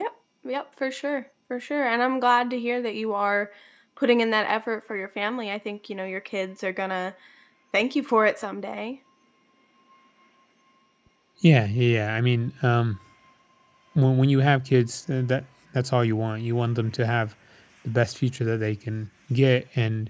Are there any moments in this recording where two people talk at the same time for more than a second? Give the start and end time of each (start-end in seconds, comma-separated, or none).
none